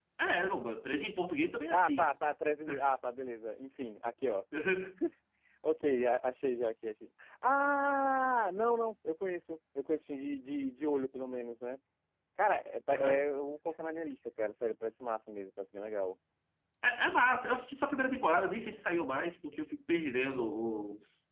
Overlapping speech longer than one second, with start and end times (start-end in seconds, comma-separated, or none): none